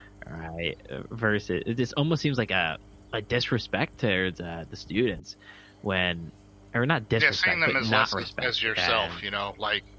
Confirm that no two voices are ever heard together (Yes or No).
No